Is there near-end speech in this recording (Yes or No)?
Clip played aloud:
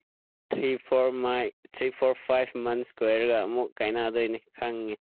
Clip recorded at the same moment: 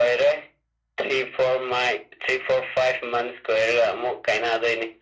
No